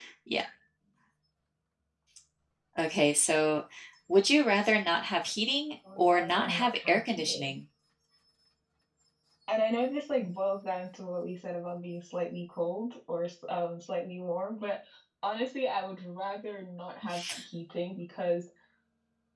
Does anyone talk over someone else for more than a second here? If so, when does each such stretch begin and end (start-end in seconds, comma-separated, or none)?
6.0-7.5